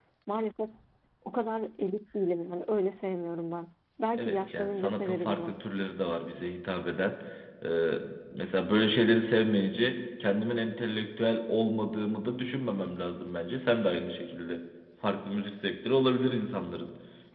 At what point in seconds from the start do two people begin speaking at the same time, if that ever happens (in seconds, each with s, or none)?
4.1 s